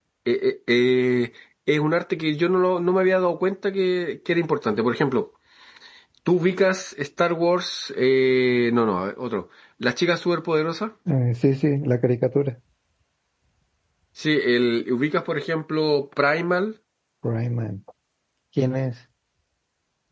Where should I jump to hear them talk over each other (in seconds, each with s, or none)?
none